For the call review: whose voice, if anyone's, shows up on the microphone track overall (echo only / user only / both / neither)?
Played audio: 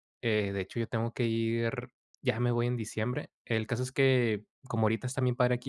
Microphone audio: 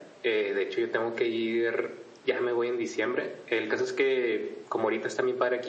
echo only